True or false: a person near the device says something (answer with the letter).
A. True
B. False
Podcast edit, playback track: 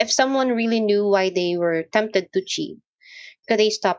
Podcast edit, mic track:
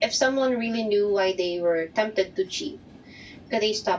B